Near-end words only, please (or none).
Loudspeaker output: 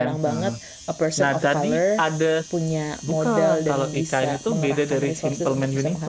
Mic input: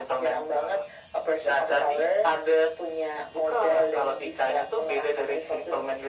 none